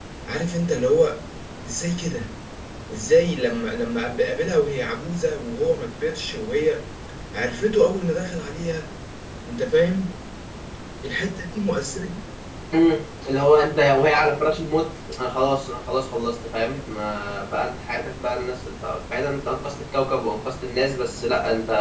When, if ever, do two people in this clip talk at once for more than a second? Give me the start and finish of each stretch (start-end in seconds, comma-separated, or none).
none